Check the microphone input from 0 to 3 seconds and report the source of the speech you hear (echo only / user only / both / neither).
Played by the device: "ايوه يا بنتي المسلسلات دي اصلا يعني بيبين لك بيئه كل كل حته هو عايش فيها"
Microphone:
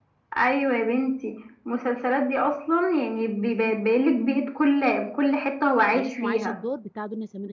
echo only